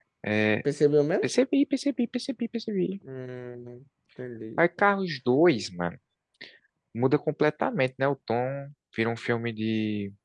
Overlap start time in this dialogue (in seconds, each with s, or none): none